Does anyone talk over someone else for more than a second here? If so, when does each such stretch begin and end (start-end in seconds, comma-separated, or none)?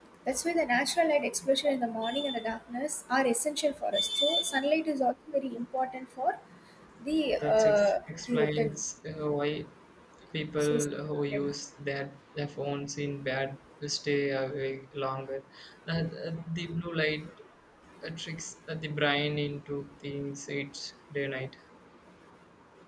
7.4-8.8